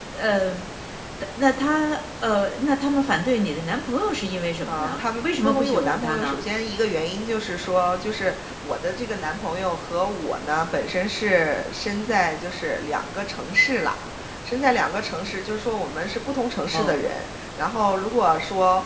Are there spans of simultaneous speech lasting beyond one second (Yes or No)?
Yes